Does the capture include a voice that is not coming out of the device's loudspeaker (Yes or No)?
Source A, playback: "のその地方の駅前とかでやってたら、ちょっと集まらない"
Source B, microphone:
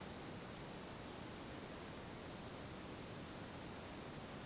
No